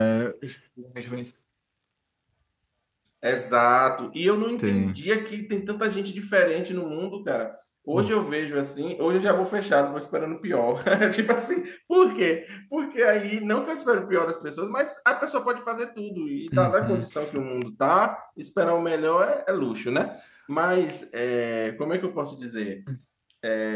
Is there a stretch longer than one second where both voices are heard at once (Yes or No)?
No